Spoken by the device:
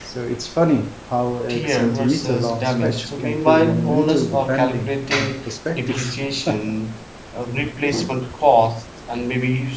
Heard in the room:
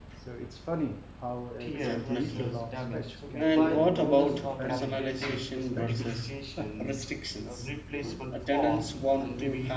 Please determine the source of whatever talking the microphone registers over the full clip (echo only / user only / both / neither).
both